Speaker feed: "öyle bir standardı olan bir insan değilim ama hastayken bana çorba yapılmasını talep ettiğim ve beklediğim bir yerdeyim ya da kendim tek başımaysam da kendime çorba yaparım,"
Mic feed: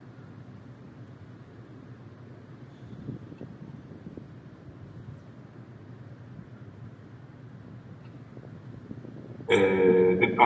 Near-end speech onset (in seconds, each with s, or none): 9.5 s